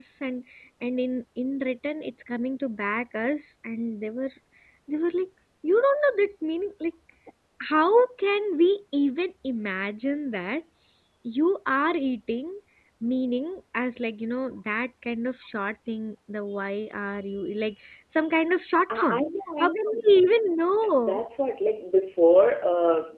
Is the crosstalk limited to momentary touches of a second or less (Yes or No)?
Yes